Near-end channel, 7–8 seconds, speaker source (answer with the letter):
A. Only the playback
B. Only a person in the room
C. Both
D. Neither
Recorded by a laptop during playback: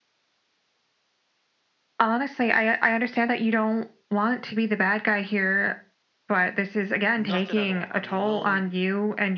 C